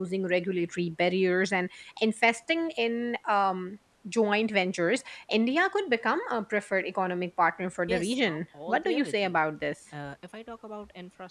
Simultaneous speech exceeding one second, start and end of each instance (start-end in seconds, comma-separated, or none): 7.9-9.4